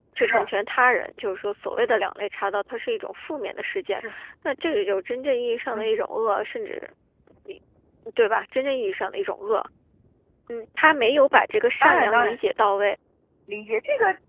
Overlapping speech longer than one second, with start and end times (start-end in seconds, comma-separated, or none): none